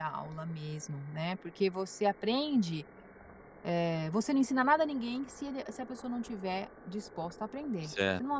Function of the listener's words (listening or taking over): taking over